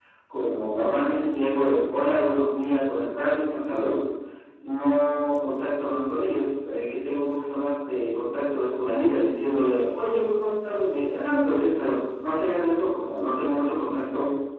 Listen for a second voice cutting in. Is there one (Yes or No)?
No